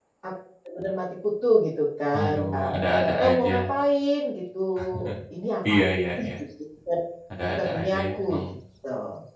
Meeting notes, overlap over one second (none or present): present